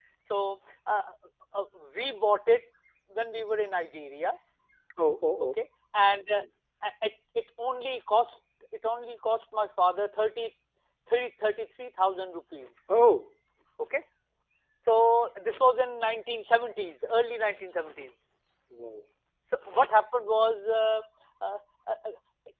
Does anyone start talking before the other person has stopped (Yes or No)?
No